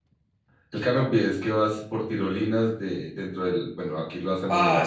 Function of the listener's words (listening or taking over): taking over